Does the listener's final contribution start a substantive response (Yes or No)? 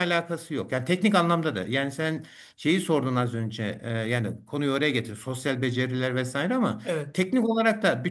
No